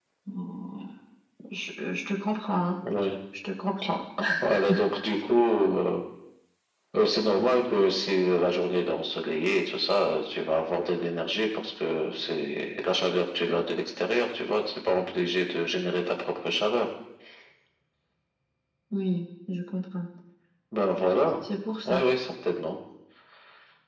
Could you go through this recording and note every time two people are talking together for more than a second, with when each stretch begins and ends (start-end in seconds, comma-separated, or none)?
none